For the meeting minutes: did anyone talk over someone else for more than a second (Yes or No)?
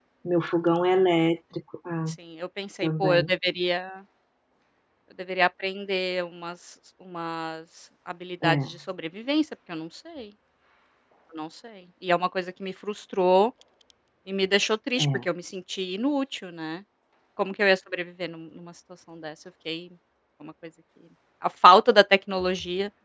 No